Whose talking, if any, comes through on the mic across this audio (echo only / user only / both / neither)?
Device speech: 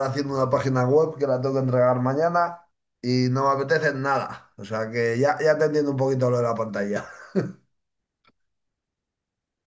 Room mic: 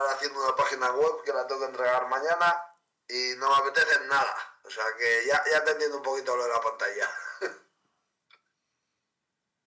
echo only